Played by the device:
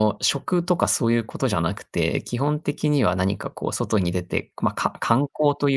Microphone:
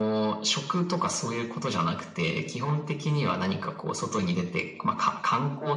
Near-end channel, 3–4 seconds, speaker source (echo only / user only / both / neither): echo only